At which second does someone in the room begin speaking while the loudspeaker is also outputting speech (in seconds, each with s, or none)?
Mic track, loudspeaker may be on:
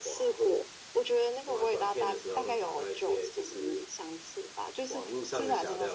none